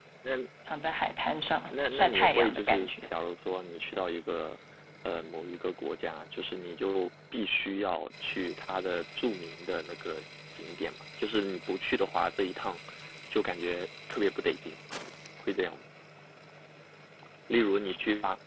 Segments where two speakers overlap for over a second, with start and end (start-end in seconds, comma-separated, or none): 1.7-3.1